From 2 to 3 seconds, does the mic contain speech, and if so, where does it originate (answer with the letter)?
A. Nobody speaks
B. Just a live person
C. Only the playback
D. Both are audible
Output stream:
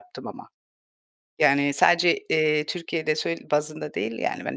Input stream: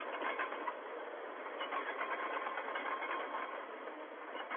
A